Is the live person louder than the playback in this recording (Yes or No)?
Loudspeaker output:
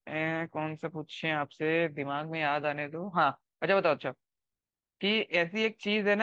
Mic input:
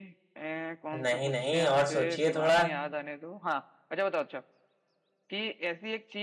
Yes